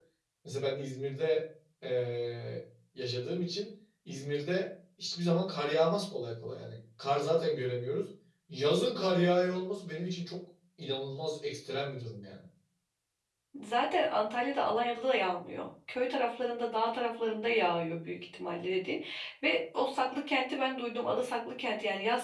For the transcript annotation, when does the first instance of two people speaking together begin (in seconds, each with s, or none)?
none